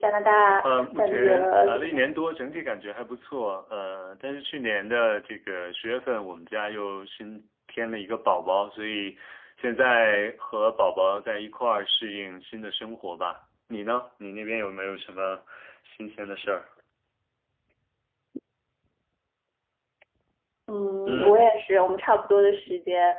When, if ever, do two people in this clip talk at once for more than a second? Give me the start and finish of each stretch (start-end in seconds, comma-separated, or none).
0.6-2.0